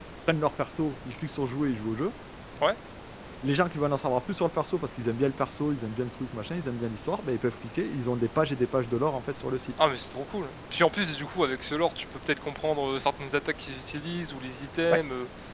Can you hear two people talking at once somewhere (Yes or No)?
No